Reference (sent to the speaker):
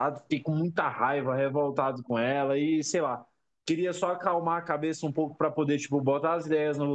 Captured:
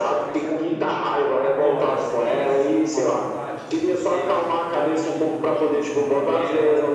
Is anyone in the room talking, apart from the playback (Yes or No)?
Yes